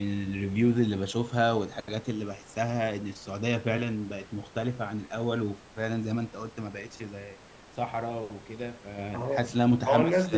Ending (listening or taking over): taking over